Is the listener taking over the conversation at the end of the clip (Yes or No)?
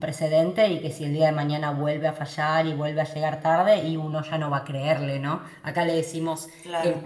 No